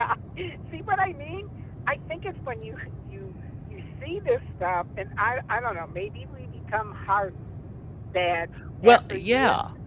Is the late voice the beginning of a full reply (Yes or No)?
No